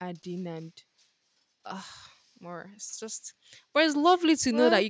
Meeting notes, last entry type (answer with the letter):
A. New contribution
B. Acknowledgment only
B